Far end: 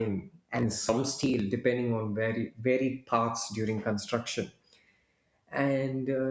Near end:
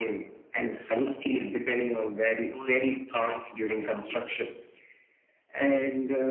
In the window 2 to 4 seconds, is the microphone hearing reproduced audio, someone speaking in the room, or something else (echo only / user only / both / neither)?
both